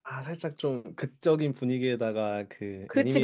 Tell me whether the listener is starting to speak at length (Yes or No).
No